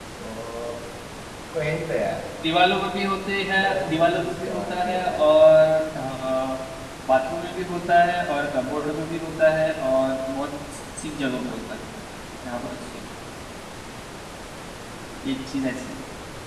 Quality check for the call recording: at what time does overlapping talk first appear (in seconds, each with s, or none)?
3.6 s